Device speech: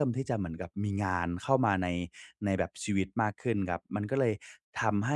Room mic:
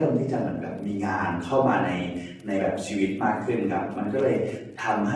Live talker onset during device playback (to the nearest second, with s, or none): none